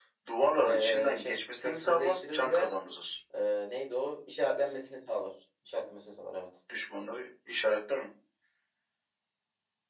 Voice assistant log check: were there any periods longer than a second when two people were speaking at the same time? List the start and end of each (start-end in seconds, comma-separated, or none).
0.6-2.7